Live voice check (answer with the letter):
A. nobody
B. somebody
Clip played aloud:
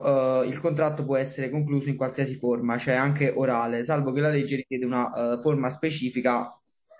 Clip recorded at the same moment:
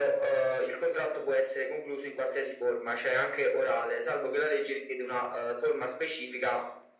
A